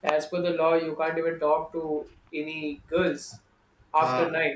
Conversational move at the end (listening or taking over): listening